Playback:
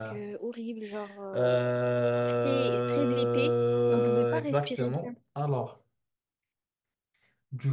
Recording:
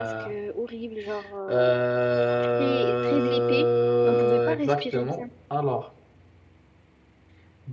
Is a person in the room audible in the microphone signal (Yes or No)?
No